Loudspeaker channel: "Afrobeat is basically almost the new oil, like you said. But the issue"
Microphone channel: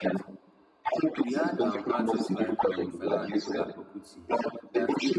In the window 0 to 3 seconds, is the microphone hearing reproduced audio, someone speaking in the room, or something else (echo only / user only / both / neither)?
both